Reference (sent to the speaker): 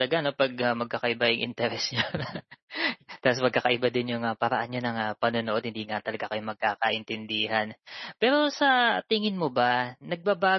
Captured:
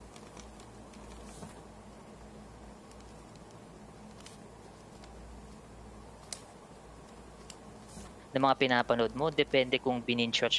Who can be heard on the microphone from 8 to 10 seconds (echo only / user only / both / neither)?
user only